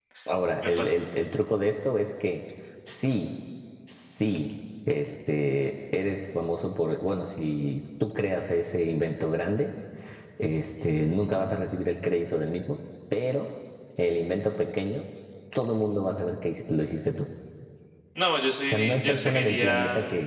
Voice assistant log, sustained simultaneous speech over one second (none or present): present